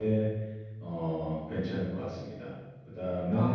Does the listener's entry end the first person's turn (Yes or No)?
No